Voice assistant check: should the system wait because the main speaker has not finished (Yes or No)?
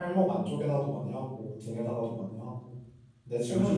No